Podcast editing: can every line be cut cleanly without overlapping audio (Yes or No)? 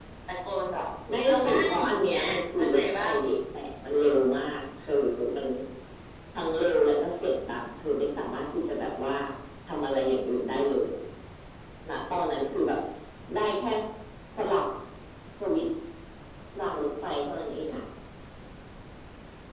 No